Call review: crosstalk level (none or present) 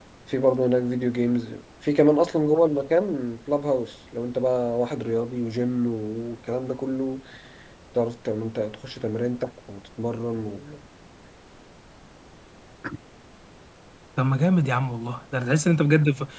none